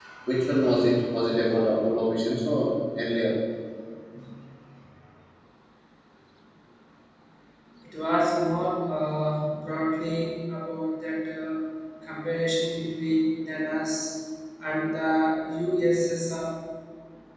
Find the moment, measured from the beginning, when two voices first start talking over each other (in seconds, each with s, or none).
none